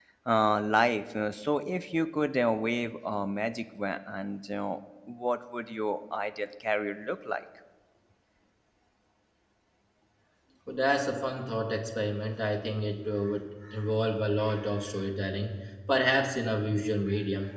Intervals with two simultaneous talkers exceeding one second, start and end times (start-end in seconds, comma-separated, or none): none